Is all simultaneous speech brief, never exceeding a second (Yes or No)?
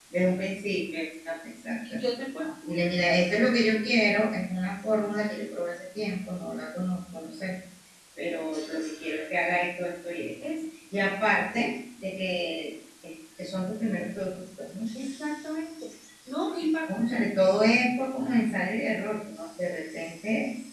Yes